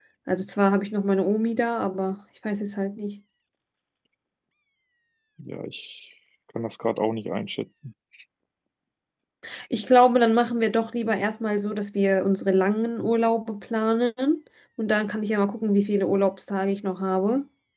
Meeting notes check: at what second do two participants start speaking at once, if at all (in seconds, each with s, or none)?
none